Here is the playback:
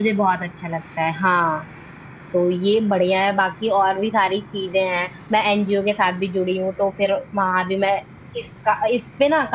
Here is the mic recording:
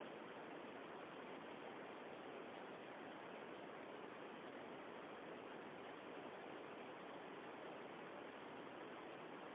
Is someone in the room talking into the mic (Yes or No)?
No